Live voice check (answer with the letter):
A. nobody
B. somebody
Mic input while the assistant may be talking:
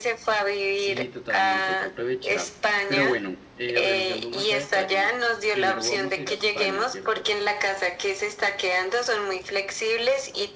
B